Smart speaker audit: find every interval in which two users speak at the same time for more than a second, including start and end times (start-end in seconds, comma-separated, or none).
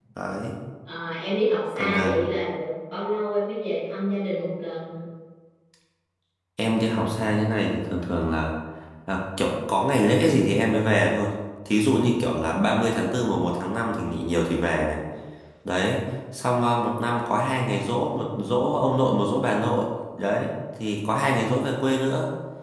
none